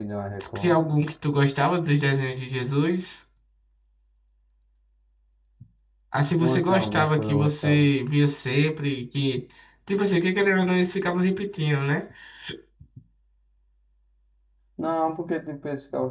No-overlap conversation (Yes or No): No